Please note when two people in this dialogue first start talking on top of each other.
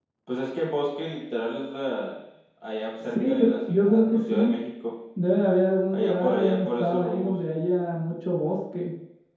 3.0 s

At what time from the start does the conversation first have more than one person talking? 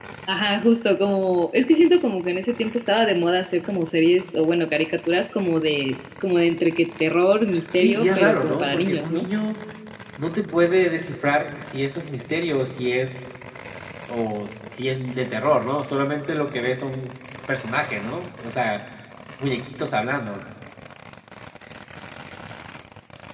7.7 s

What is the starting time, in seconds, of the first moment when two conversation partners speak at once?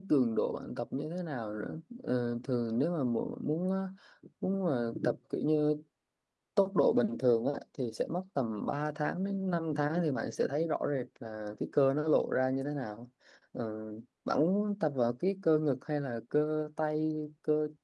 none

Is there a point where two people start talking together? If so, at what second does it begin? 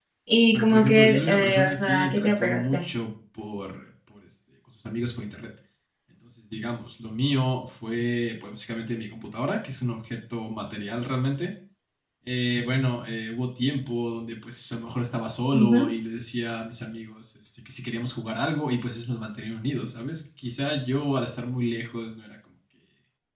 0.5 s

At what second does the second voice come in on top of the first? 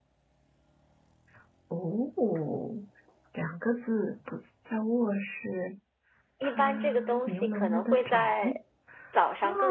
6.6 s

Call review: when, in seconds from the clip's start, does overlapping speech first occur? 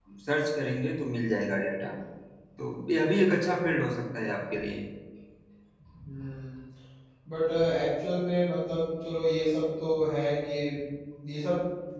none

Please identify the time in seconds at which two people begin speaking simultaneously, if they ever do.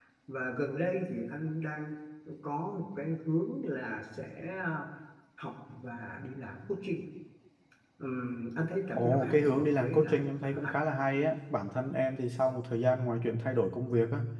8.9 s

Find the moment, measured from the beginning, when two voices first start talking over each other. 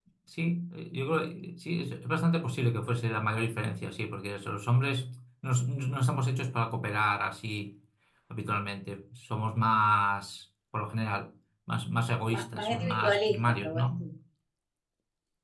12.3 s

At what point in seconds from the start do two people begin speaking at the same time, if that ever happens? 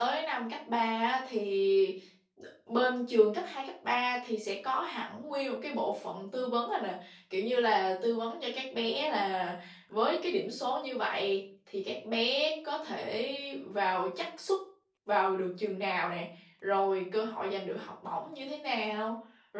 none

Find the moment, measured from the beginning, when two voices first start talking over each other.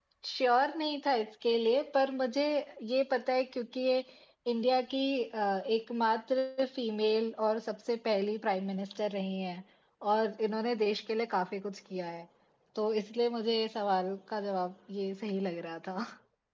none

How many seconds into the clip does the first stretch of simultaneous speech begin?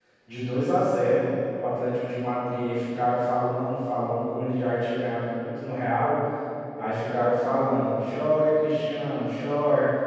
none

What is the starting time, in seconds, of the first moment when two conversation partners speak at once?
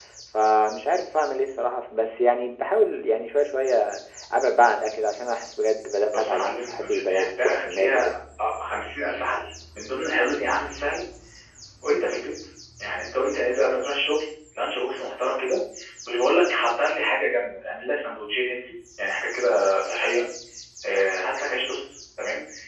6.1 s

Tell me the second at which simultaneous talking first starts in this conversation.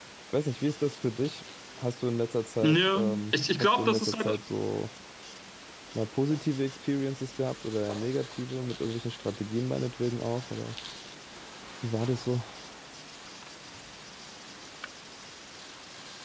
2.6 s

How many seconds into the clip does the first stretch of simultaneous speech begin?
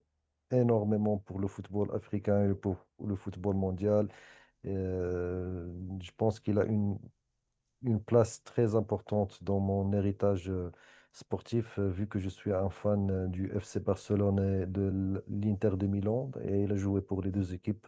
none

